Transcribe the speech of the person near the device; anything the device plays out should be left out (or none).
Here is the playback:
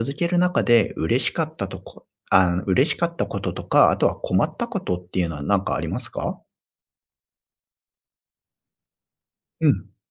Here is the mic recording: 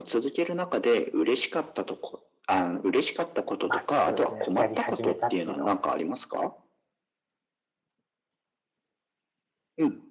まあ、そうですね、やり始めたっていうのは